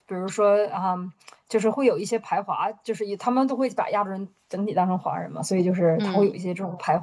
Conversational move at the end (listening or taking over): listening